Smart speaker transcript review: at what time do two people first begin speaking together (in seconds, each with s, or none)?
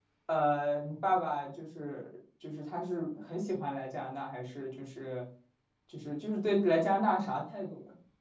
none